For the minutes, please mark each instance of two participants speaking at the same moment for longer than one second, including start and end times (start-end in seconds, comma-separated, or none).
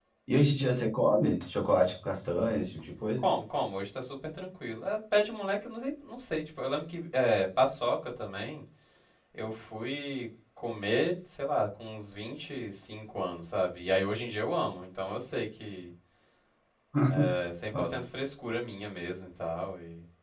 none